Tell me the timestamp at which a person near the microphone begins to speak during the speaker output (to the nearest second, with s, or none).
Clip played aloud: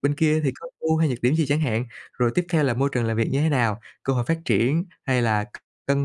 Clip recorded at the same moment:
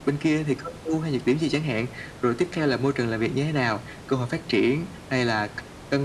none